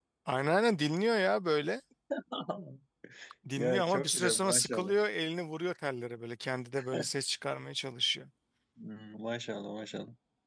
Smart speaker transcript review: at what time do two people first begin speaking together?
4 s

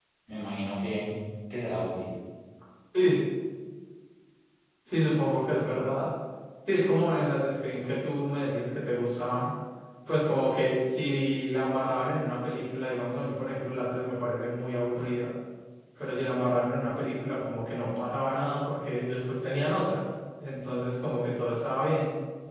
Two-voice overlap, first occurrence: none

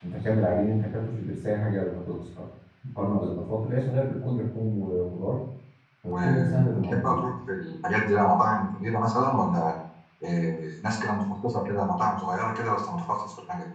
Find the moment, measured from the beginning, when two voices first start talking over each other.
6 s

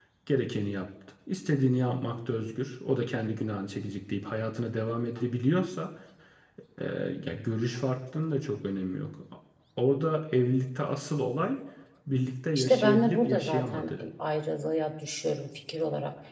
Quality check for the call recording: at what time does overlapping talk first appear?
13 s

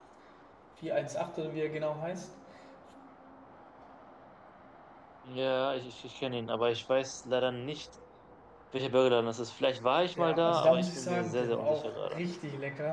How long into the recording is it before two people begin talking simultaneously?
10 s

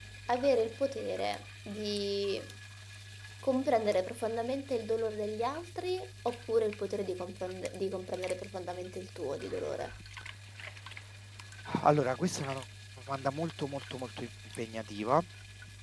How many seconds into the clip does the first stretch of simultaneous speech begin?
none

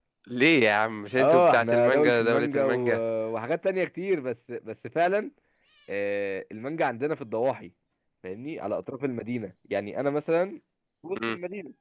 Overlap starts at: 1 s

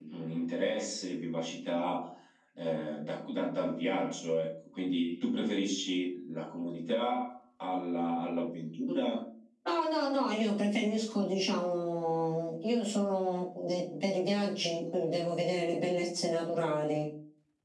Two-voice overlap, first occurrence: none

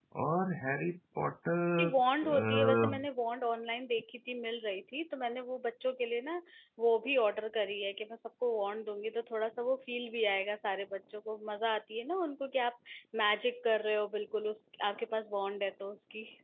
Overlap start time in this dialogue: 2 s

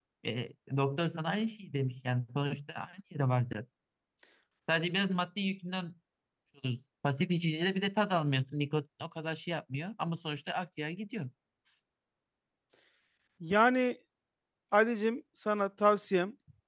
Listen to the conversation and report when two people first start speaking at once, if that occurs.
none

